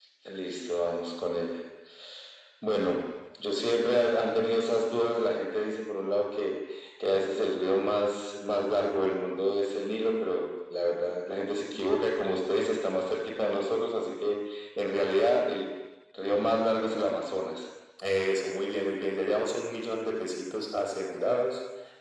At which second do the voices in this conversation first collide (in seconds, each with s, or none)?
none